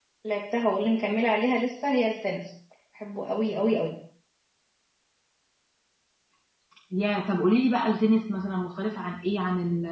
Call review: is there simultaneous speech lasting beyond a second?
No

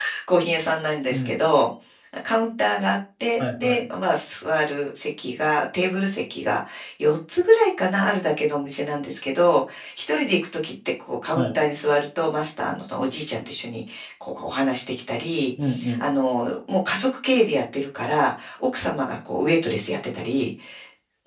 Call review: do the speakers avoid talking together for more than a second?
Yes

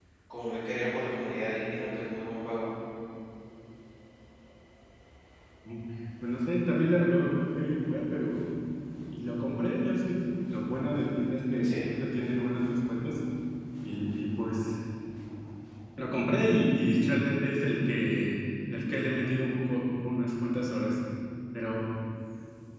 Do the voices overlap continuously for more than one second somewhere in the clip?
No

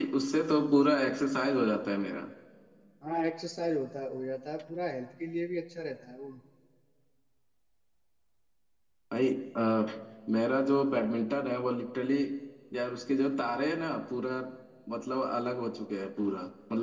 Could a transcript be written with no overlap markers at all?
Yes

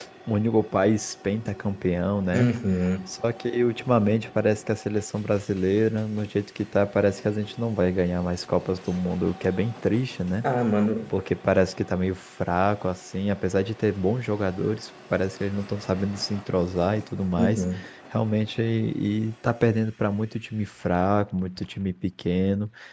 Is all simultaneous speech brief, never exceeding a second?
Yes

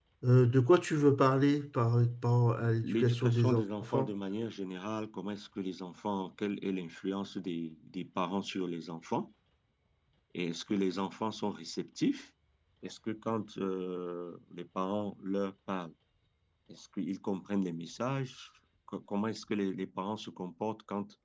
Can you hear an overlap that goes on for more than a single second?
Yes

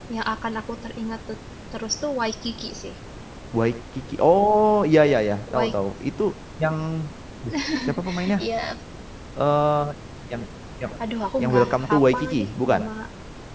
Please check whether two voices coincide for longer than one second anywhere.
Yes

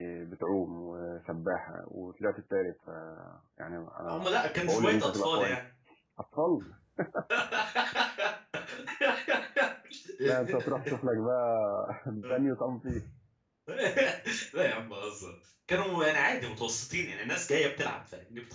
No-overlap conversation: No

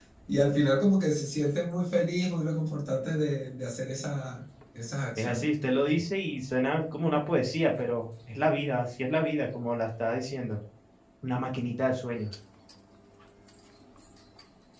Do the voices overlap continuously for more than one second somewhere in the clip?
No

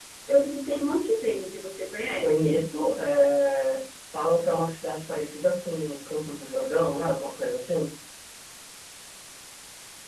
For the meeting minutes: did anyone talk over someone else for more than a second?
No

